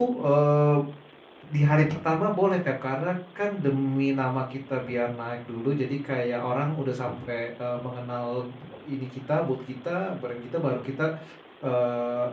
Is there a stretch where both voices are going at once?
No

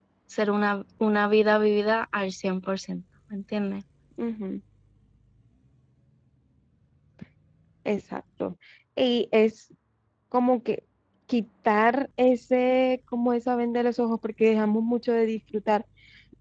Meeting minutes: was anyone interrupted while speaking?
No

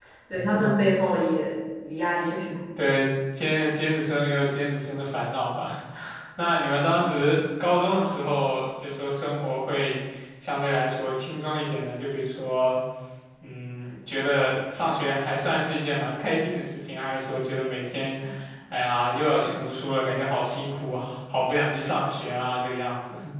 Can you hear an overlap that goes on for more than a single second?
No

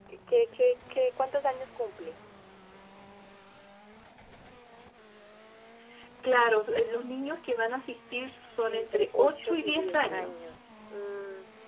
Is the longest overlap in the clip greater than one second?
Yes, from 8.7 s

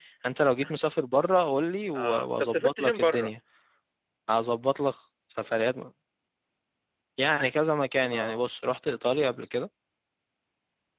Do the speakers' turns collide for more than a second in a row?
Yes, from 1.9 s

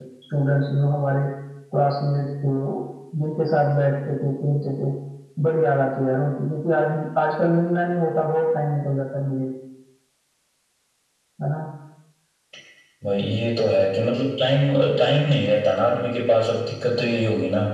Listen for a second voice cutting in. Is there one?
No

